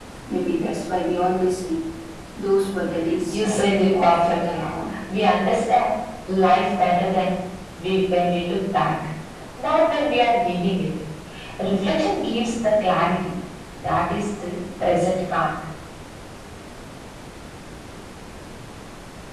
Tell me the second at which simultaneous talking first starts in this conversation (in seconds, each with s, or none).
3.3 s